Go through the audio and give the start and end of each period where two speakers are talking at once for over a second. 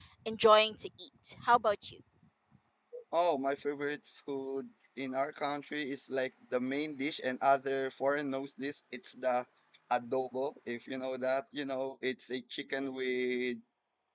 none

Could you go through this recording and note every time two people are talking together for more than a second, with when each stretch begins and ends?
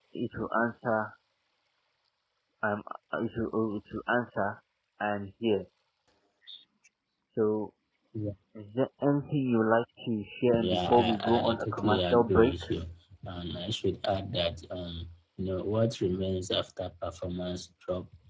10.6-12.5

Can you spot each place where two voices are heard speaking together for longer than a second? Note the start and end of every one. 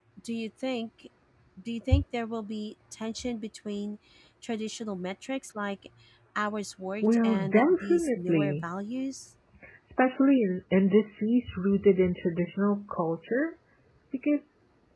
7.0-8.6

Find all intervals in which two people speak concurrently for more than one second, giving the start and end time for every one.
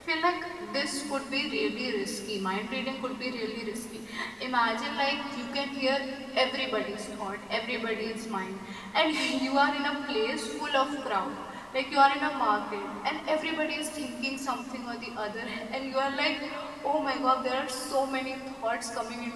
none

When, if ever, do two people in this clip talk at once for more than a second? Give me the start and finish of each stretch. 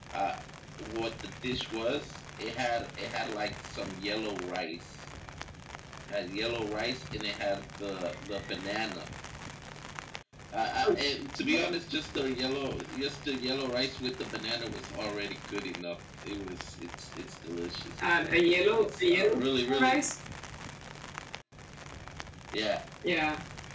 18.8-20.1

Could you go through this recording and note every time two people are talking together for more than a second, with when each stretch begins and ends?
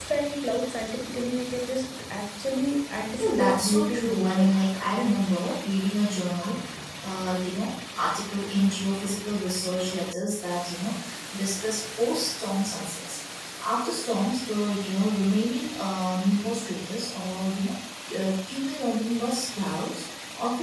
3.2-4.5

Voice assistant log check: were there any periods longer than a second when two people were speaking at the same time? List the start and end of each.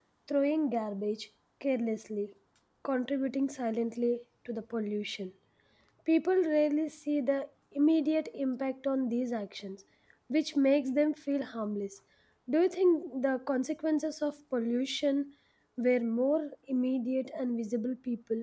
none

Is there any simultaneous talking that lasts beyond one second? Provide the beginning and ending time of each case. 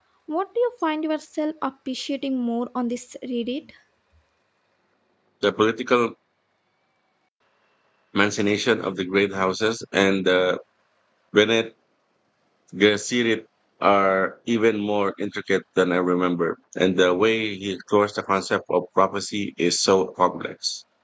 none

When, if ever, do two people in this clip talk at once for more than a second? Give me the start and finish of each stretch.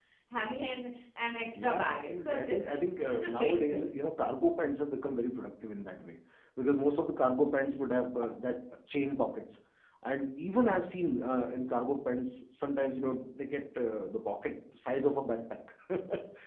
1.6-3.9

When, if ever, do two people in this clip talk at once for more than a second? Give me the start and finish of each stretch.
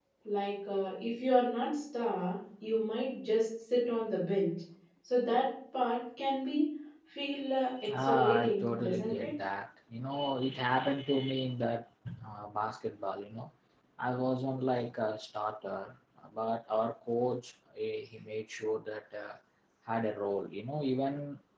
8.0-9.3

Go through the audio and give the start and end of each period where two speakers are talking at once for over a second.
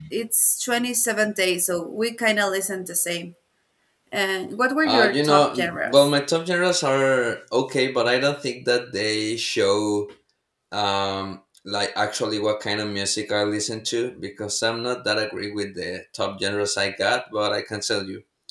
4.8-6.1

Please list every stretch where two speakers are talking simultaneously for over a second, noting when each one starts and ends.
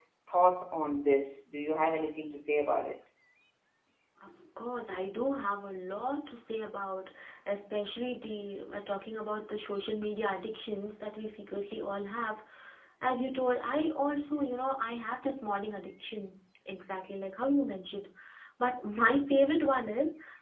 none

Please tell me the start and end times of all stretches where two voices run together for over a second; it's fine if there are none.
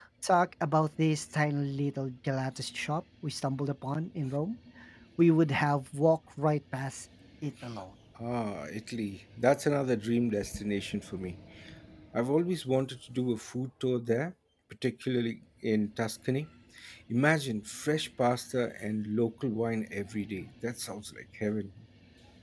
none

